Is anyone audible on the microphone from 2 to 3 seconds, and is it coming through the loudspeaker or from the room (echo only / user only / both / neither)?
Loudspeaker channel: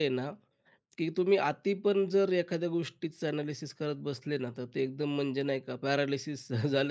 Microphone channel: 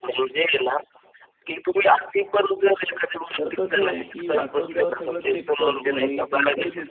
echo only